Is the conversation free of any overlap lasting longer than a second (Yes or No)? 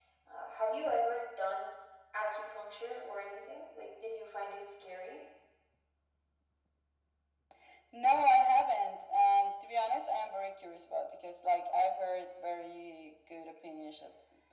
Yes